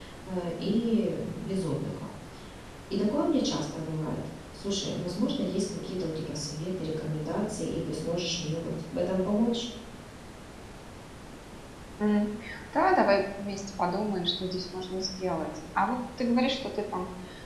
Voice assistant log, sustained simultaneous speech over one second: none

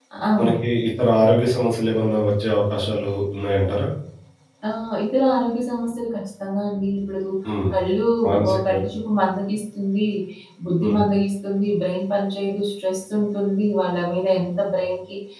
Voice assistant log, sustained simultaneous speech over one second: none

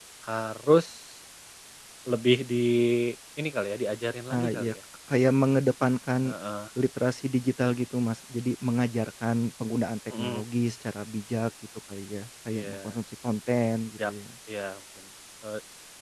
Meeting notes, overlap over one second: none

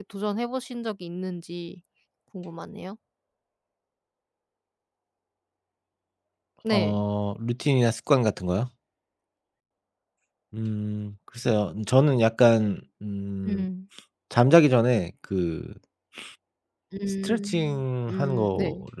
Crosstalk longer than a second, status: present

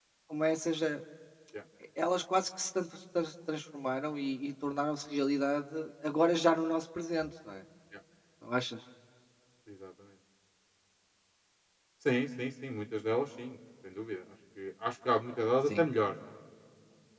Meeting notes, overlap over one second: none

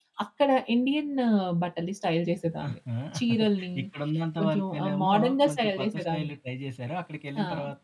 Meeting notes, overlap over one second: present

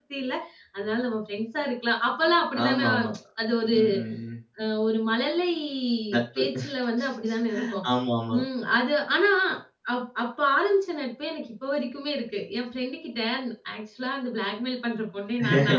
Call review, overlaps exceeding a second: none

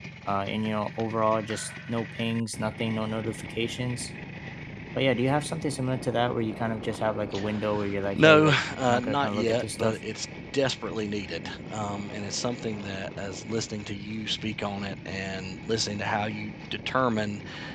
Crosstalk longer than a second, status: present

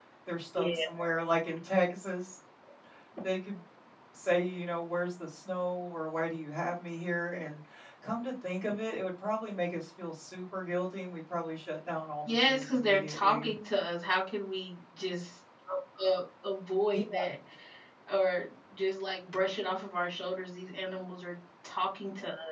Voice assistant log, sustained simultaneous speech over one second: present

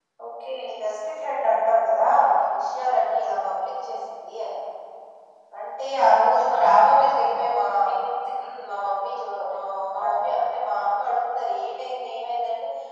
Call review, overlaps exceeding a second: present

